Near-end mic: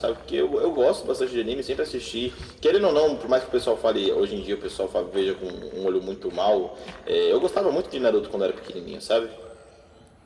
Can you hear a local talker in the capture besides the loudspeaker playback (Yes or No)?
No